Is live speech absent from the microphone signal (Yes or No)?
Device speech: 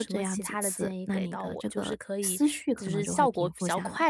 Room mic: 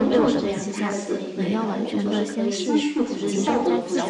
No